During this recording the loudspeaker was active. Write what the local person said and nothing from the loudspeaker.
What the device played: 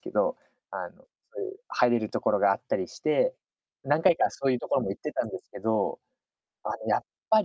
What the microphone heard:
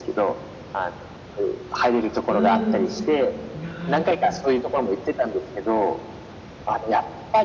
うーん。なる

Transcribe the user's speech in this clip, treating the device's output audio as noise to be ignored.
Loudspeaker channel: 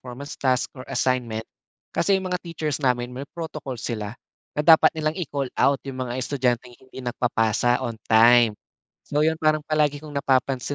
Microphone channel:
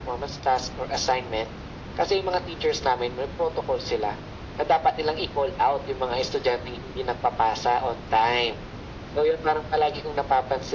none

